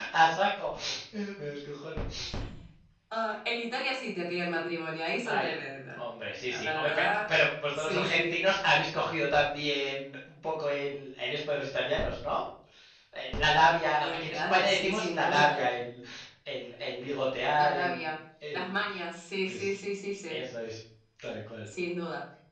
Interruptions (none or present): present